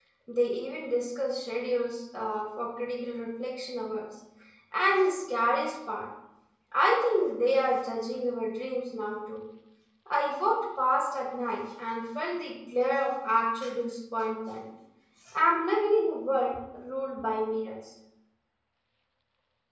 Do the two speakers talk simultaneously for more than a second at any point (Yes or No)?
No